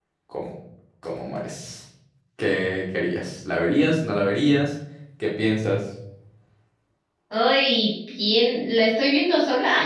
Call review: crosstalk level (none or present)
none